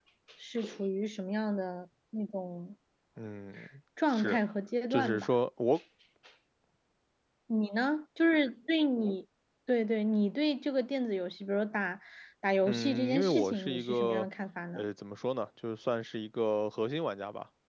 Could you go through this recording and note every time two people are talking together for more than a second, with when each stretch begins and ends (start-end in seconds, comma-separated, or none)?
12.6-14.3